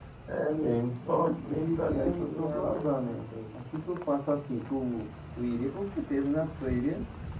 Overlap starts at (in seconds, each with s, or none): 1.4 s